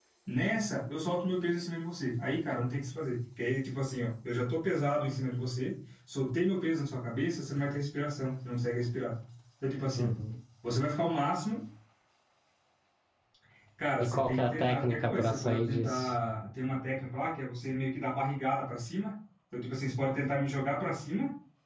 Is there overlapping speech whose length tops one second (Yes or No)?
Yes